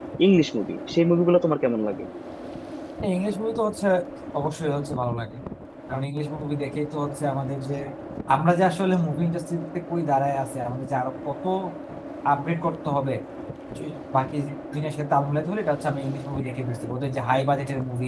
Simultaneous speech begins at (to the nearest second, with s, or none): none